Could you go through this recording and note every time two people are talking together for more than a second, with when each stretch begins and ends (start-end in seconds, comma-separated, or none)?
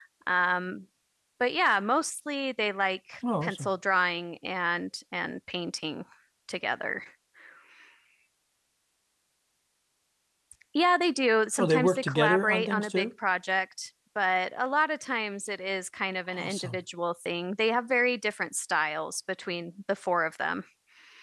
11.6-13.1